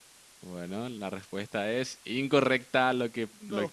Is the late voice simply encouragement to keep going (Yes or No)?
Yes